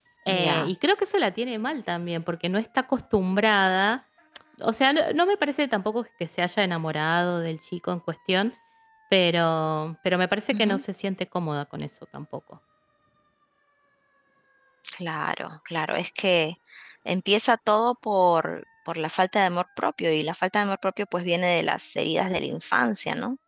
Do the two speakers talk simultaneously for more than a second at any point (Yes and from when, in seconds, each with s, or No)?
No